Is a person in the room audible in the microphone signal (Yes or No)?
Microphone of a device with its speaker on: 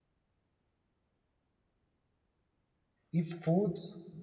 Yes